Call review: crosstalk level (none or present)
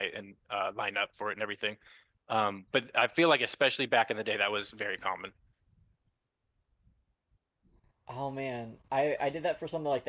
none